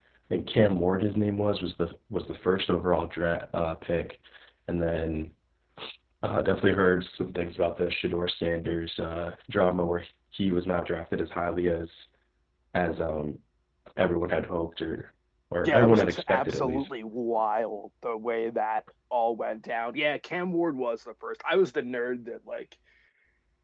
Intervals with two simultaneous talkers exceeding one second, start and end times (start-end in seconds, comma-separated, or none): 15.6-16.9